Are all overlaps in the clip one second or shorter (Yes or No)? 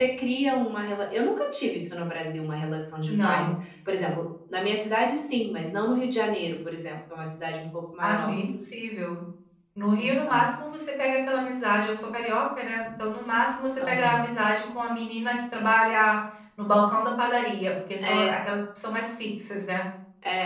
Yes